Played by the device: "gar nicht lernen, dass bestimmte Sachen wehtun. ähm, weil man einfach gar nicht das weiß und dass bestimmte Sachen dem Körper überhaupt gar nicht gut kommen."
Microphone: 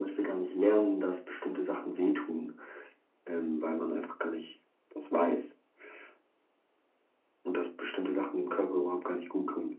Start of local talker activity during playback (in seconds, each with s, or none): none